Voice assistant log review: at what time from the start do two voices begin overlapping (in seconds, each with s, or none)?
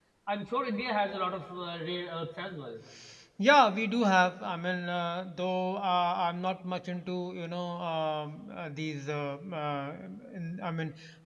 none